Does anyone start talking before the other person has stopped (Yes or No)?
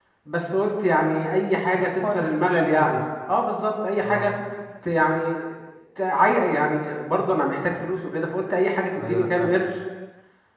Yes